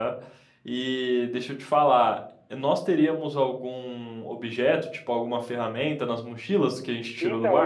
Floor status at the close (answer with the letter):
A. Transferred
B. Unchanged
A